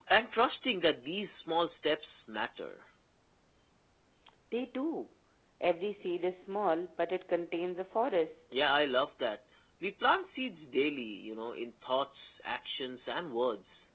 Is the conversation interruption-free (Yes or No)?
Yes